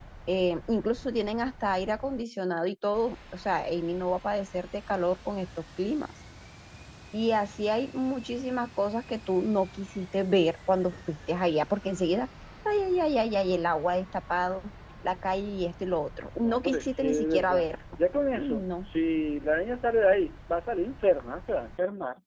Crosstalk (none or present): present